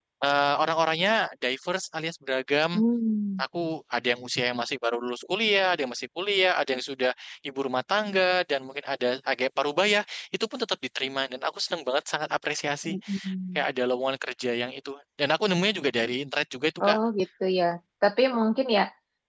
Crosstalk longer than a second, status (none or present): none